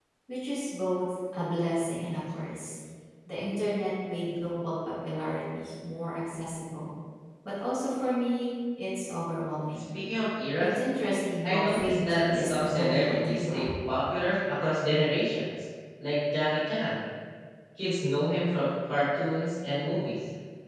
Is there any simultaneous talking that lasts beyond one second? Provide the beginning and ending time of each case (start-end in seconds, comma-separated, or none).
11.4-13.7